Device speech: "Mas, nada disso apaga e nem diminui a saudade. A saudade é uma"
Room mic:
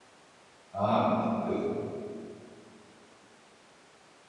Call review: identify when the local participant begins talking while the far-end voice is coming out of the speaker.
0.7 s

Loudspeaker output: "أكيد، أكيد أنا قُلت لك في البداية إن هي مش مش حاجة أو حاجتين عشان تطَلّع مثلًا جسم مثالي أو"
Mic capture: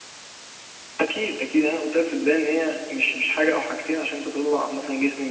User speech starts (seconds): none

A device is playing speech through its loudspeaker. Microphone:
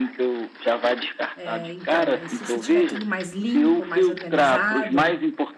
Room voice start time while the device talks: 1.4 s

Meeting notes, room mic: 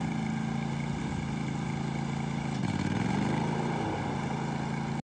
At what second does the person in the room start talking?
none

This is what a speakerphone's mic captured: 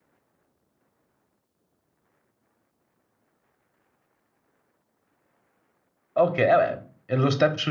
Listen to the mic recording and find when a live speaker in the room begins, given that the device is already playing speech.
6.2 s

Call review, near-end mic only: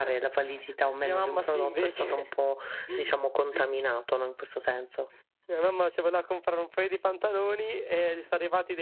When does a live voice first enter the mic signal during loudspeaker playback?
none

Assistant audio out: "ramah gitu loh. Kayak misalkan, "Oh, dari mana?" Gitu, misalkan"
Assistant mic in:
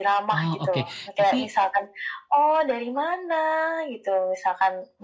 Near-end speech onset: 0.3 s

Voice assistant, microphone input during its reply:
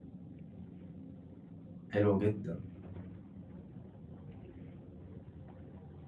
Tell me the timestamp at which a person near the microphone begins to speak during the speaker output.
1.9 s

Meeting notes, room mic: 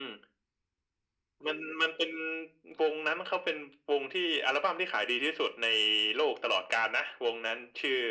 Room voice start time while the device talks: none

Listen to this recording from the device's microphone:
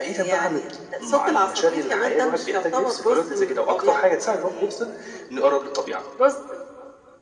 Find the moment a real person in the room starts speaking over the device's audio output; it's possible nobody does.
none

